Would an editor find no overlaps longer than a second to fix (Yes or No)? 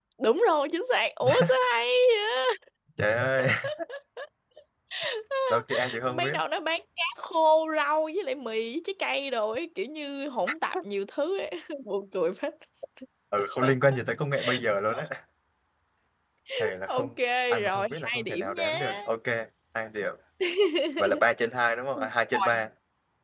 No